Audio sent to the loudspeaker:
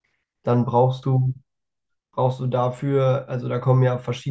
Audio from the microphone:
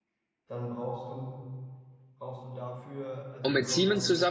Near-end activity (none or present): present